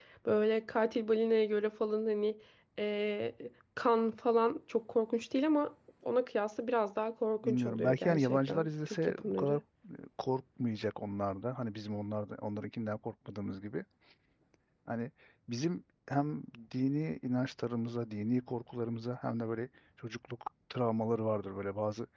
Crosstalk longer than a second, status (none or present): present